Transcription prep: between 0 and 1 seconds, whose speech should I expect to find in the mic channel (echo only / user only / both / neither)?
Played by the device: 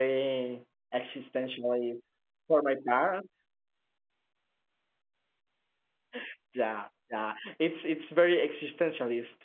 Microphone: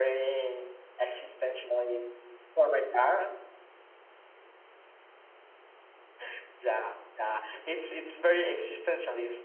echo only